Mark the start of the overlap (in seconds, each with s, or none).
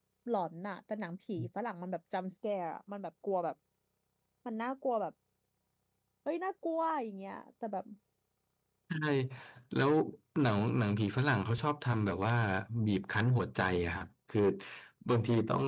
none